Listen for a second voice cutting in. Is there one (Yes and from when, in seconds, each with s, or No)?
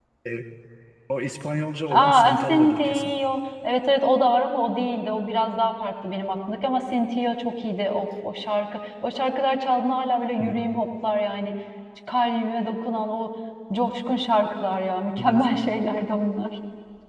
Yes, from 1.9 s